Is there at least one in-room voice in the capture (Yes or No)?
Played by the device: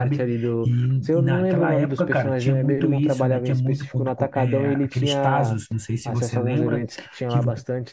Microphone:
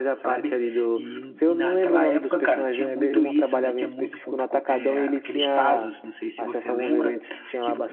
No